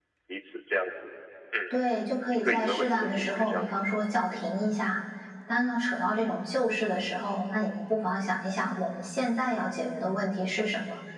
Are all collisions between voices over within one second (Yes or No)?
No